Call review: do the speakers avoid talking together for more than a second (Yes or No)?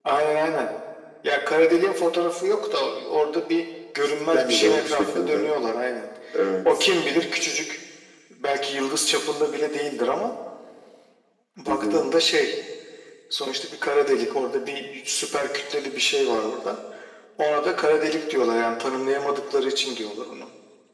No